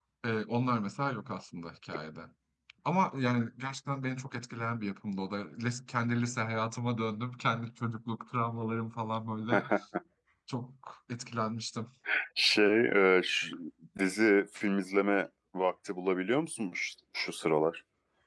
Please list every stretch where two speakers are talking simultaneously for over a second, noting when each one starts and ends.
none

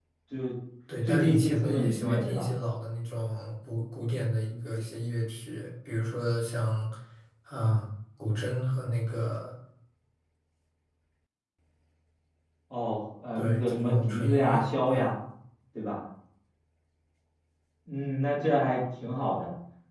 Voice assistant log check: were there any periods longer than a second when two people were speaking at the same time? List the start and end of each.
1.0-2.4, 13.4-15.1

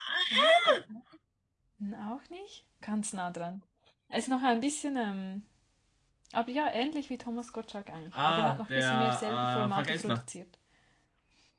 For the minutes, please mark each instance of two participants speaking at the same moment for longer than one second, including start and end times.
8.2-10.2

